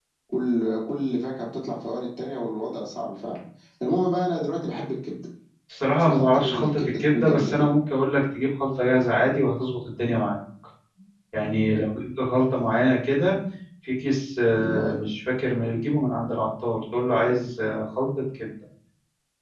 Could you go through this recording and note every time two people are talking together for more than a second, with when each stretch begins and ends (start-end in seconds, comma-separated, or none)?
6.0-7.7